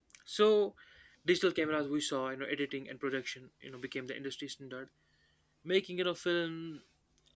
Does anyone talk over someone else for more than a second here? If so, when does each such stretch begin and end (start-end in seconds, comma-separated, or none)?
none